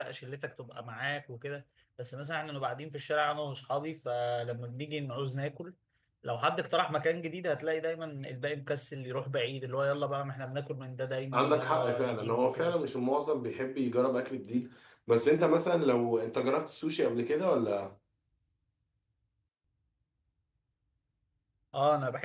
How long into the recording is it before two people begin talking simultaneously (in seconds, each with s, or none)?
11.3 s